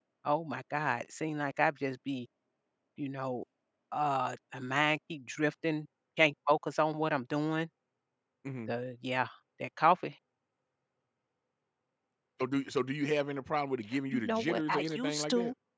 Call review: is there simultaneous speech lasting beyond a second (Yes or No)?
Yes